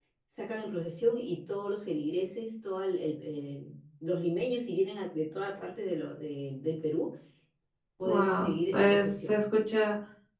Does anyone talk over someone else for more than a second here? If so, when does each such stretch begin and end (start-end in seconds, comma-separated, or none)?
8.0-9.4